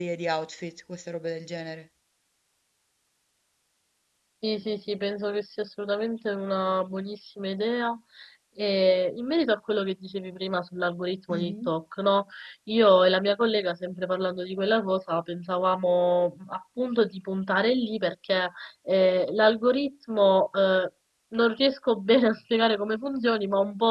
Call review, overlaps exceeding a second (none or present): none